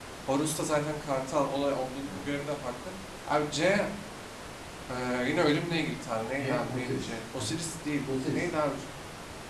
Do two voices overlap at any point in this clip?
Yes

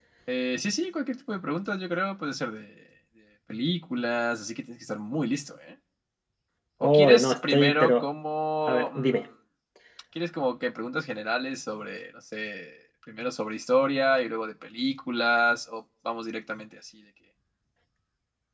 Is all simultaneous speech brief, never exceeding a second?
No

